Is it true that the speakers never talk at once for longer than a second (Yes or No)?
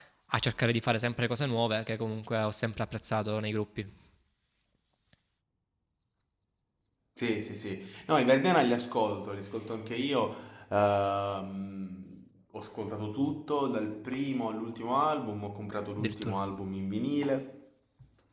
Yes